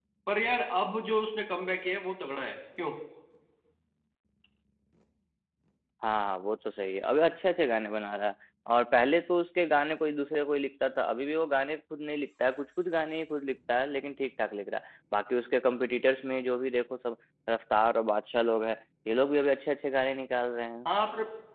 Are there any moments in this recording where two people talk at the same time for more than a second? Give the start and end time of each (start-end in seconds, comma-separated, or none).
none